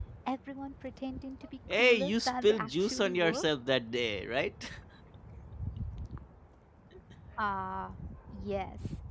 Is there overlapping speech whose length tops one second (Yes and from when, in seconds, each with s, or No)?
Yes, from 1.7 s